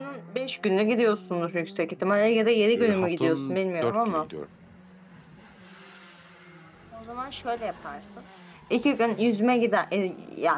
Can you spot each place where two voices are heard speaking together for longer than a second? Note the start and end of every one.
2.7-4.3

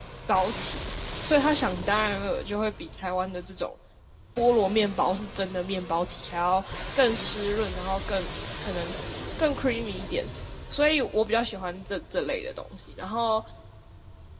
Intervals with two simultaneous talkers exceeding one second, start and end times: none

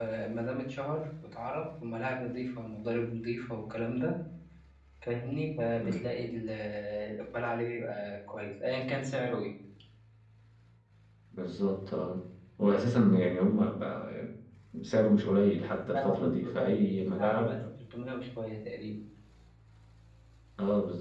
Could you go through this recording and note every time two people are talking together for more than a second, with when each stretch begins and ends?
15.9-17.6

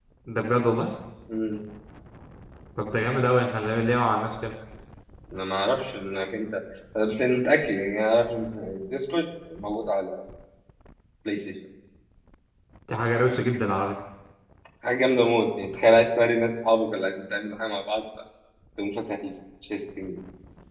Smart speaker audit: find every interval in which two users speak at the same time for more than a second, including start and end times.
none

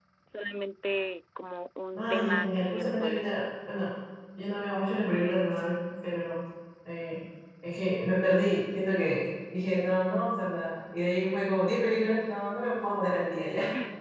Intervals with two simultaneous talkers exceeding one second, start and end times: 2.0-3.3

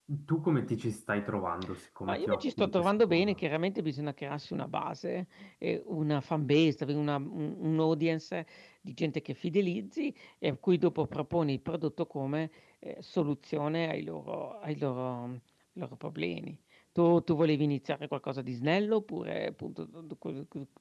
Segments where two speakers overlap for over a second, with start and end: 2.1-3.4

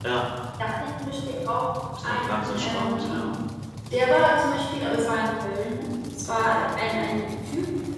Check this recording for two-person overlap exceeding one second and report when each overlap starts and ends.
2.0-3.3

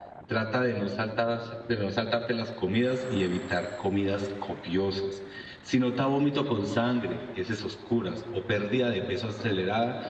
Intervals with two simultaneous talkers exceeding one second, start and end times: none

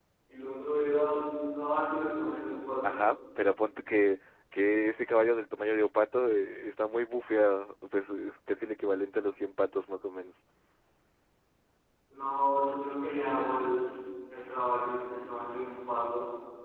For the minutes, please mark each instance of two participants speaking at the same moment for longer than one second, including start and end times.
none

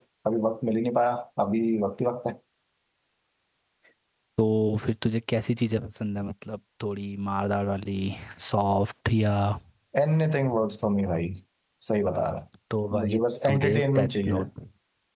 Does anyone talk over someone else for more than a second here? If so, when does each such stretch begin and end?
12.9-14.5

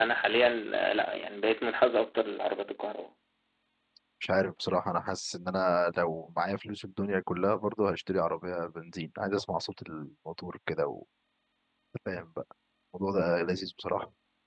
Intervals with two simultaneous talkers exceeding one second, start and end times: none

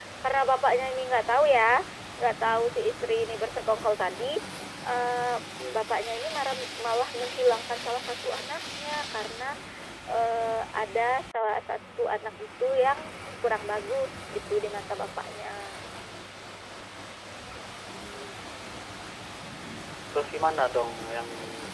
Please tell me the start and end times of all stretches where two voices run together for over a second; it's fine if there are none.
none

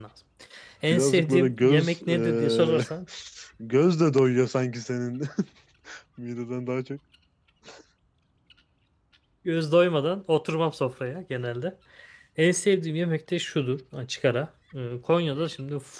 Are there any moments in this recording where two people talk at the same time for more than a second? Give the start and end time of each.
0.9-2.9

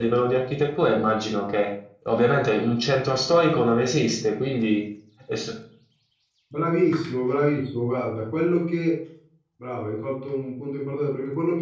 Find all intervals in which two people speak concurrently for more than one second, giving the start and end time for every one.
none

